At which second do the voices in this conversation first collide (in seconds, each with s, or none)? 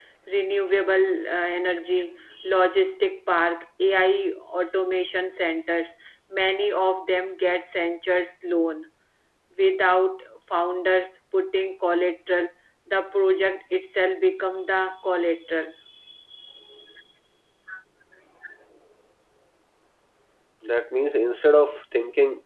none